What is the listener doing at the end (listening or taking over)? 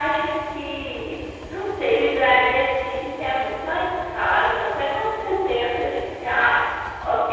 listening